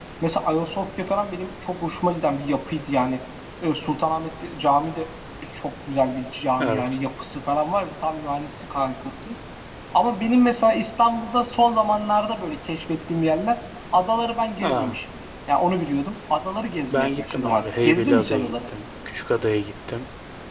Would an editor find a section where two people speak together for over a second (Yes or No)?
Yes